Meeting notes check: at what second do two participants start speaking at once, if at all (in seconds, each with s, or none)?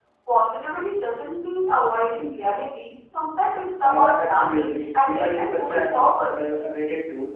3.8 s